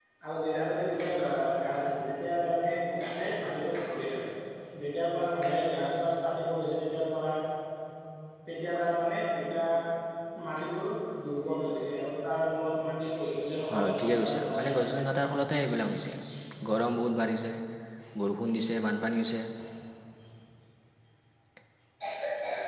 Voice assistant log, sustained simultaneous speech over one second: present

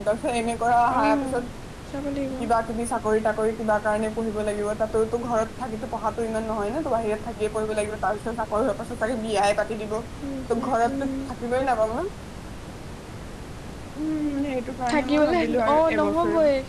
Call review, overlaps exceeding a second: present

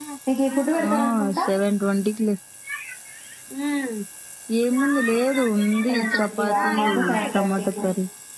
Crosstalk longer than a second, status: present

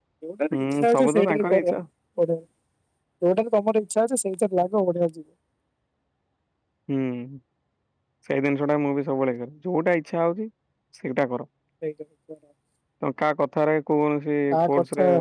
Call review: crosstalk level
present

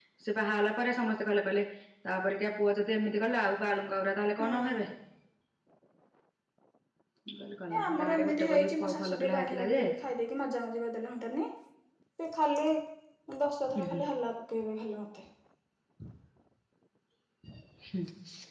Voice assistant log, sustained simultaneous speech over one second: present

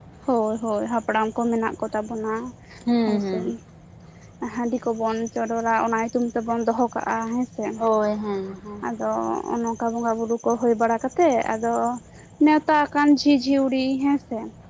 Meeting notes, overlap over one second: none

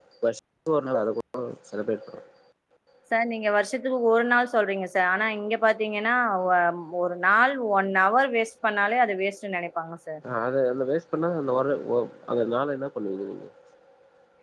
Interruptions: none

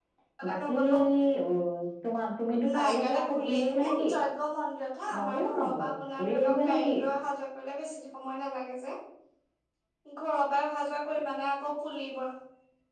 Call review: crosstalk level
present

